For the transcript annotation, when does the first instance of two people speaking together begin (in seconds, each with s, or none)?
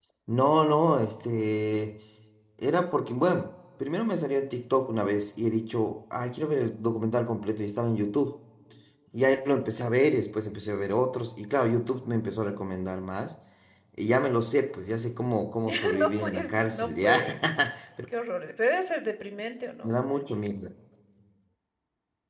15.7 s